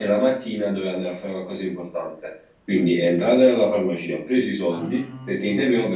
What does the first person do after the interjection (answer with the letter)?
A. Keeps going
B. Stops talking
A